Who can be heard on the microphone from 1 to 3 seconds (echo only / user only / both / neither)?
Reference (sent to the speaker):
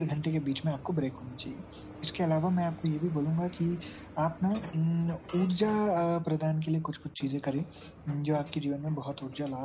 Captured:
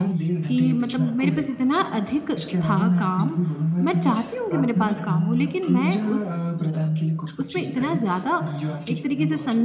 both